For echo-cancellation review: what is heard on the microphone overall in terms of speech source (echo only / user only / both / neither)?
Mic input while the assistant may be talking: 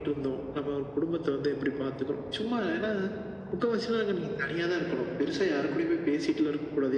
echo only